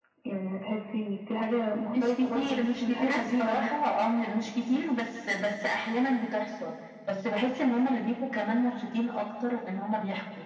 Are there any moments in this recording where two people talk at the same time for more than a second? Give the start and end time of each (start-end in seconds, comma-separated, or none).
1.9-3.7